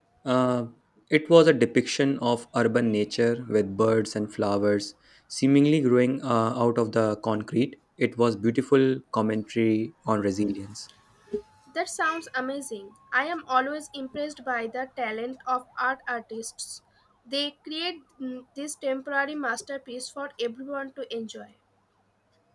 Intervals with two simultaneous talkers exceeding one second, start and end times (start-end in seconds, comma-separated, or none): none